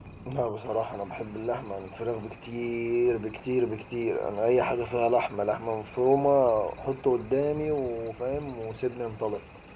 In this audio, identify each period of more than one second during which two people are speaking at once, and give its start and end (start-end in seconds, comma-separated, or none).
none